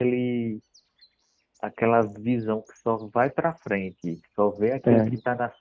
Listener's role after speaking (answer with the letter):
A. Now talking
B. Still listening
B